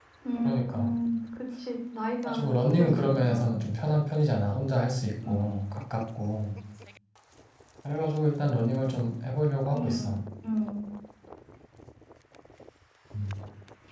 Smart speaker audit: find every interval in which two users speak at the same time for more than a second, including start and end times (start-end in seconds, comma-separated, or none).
2.2-3.5